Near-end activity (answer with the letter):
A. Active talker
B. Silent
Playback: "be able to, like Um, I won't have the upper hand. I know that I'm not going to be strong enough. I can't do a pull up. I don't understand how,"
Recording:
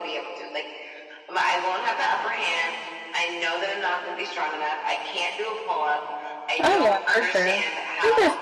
A